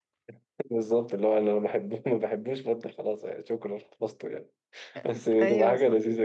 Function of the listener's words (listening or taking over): listening